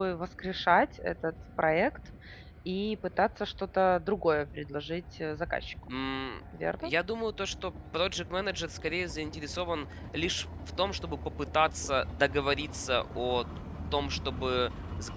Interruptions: none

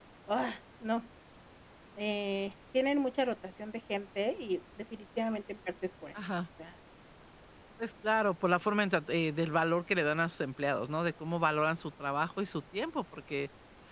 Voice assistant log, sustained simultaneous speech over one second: none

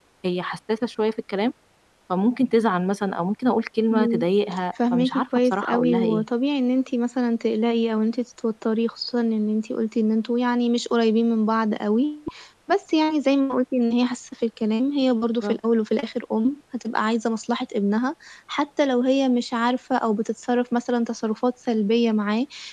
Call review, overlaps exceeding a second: present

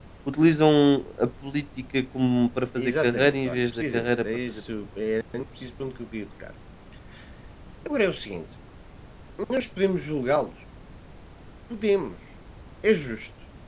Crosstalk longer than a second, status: present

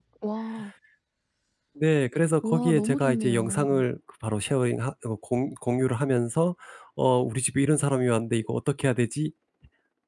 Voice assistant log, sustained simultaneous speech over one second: present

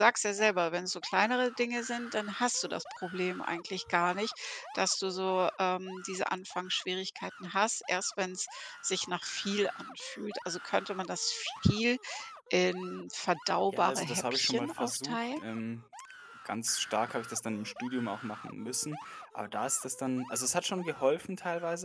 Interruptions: present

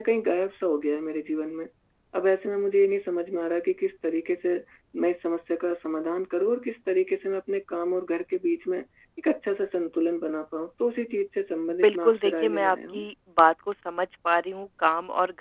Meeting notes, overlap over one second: present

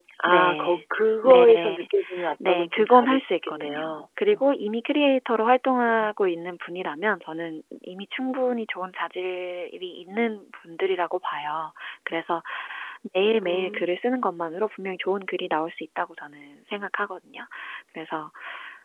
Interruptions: present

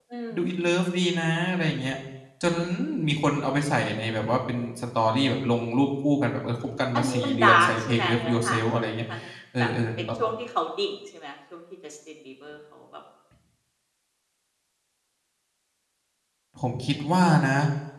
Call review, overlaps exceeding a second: present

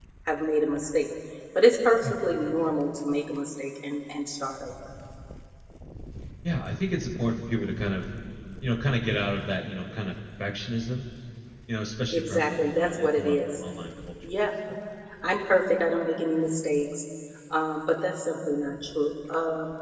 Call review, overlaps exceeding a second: present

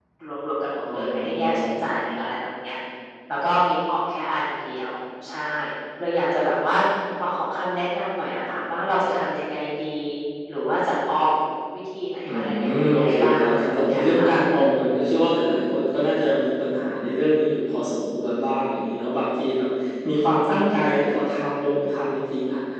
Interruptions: present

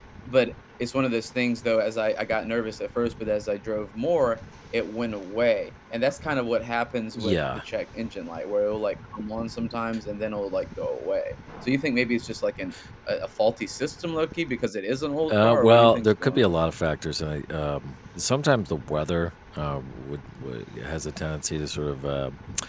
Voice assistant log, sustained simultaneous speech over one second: present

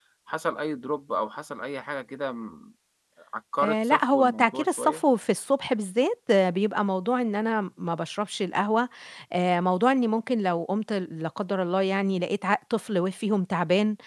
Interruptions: present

